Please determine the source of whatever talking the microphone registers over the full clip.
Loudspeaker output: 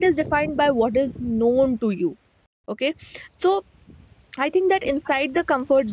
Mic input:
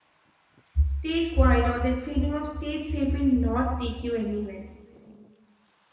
user only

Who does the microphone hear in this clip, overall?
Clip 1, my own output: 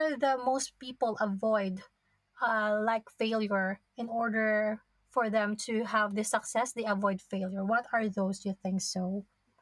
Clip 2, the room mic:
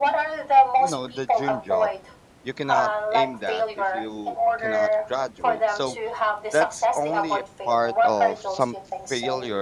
both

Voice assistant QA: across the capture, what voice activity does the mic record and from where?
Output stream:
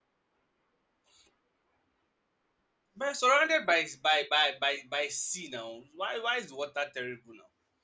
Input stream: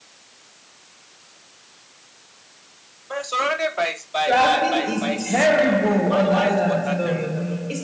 both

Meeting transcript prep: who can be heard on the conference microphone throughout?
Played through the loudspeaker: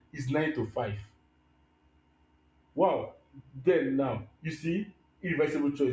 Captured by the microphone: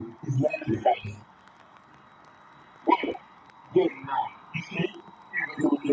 echo only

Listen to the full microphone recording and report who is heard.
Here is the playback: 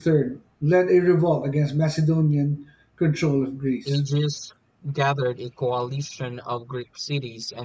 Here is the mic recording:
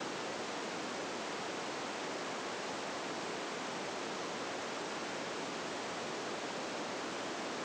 neither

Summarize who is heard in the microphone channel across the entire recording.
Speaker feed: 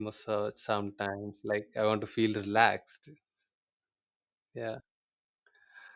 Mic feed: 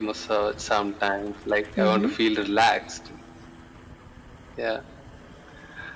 both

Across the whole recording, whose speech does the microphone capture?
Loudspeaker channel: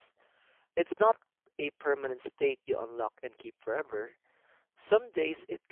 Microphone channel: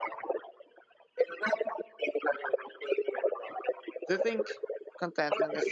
both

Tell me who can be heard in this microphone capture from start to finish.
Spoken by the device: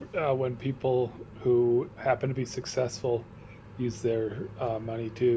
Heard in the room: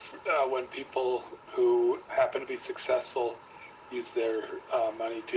echo only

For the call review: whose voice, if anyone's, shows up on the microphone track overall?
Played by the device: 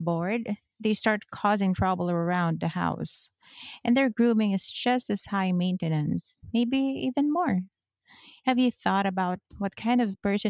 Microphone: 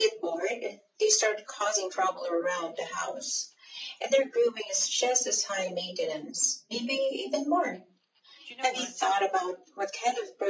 both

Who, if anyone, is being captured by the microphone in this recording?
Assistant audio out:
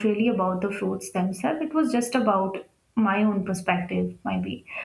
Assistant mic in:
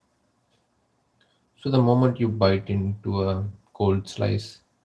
user only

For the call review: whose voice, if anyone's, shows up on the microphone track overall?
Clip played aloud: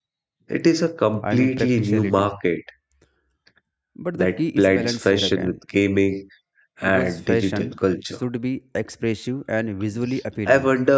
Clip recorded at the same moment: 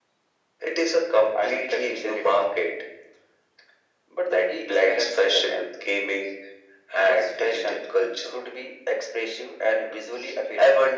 echo only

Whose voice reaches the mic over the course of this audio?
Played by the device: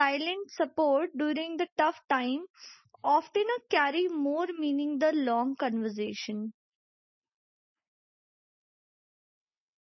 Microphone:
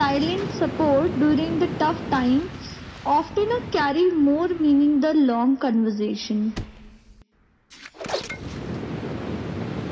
echo only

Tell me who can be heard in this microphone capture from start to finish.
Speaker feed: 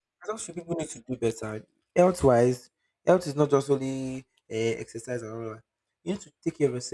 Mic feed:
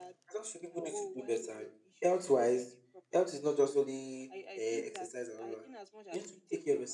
both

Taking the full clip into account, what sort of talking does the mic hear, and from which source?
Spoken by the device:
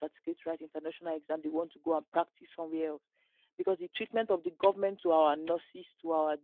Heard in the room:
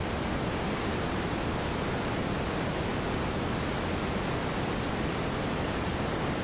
neither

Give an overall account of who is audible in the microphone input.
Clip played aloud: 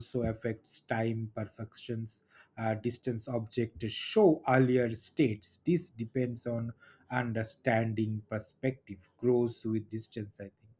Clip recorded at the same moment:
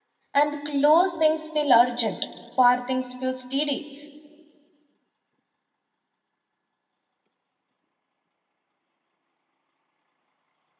user only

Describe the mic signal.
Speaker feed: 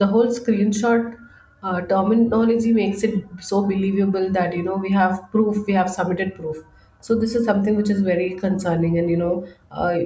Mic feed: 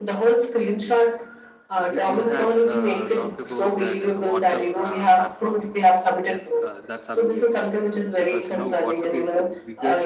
both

